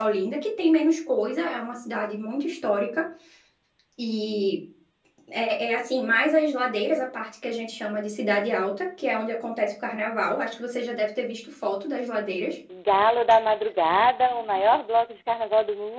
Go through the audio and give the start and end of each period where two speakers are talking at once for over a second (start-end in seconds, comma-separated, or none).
none